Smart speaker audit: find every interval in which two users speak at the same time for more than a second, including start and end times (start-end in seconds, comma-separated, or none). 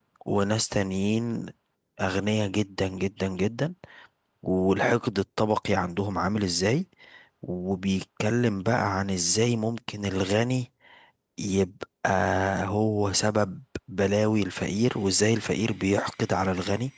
none